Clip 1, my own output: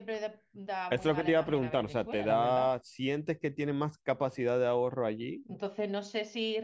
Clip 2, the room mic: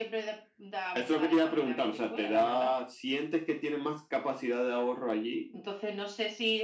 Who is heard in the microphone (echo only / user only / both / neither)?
echo only